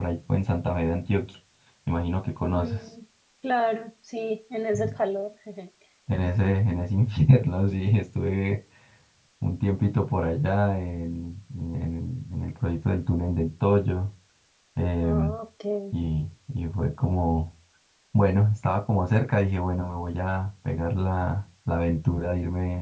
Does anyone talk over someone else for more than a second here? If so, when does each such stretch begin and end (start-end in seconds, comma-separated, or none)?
none